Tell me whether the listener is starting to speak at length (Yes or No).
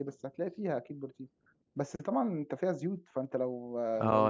Yes